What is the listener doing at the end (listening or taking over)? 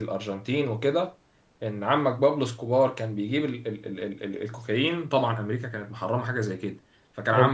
listening